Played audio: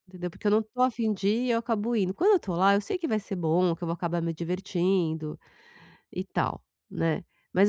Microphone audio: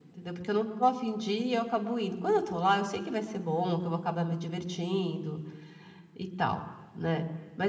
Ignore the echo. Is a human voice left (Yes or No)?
No